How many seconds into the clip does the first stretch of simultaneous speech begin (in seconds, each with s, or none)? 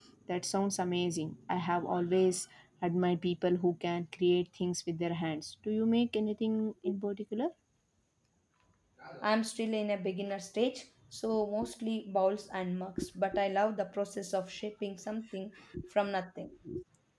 none